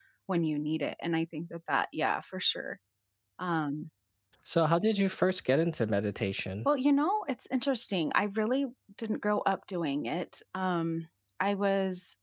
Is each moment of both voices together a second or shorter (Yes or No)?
Yes